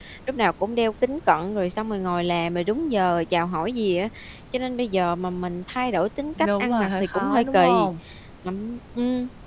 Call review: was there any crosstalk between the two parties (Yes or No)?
Yes